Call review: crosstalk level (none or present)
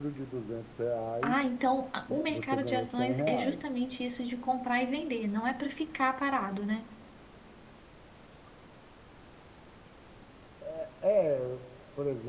present